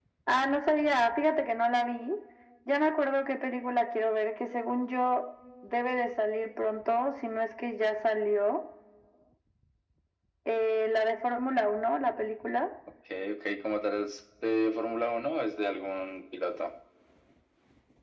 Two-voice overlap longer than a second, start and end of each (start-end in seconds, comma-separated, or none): none